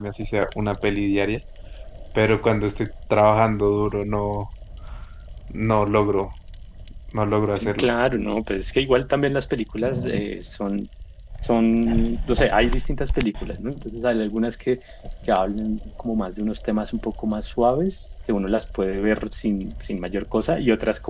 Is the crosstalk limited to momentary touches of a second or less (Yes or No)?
Yes